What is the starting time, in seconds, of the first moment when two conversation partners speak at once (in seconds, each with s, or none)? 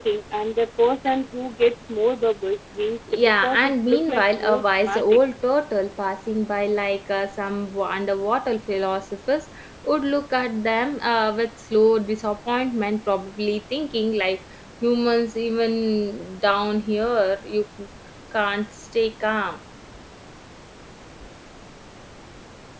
3.1 s